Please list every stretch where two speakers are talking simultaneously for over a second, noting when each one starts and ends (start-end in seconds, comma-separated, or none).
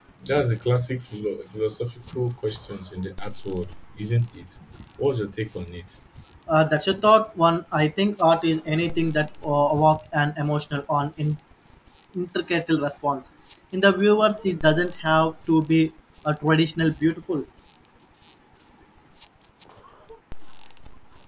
none